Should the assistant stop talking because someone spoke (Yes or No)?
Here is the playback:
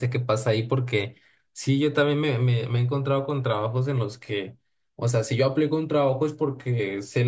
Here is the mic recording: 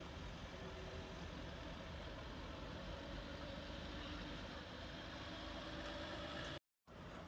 No